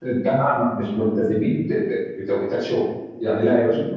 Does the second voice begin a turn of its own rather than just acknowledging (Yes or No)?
No